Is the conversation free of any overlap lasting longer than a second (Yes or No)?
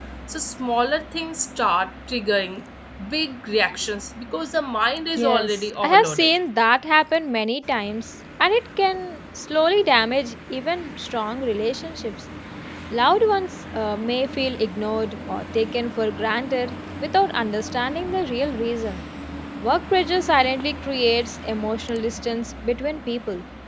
No